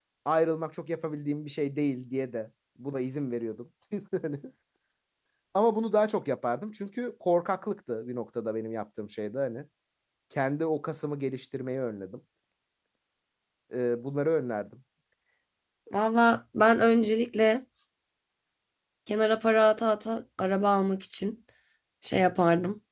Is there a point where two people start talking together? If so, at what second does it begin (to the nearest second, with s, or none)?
none